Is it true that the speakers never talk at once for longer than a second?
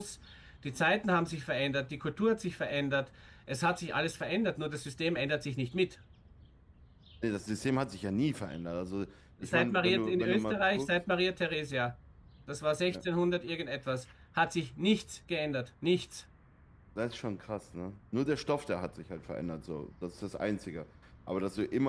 No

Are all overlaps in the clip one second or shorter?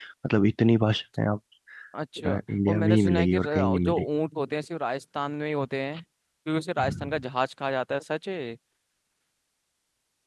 No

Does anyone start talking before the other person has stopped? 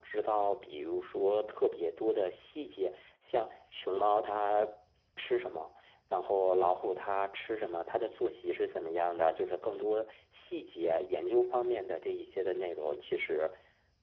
No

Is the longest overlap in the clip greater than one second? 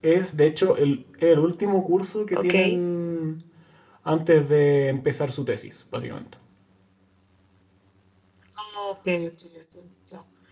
No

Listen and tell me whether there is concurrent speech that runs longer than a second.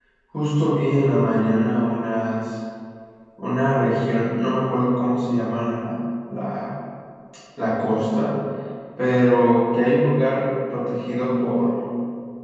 No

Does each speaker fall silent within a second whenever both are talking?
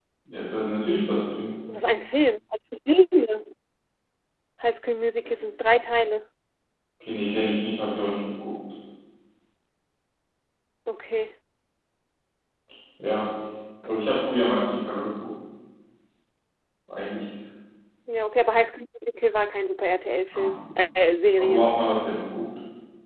Yes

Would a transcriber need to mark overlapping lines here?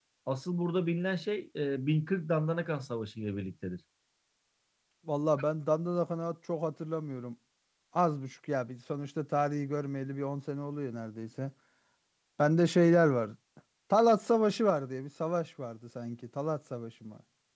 No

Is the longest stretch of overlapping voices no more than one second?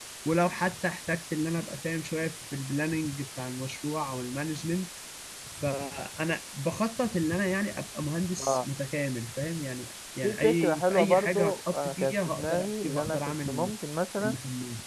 No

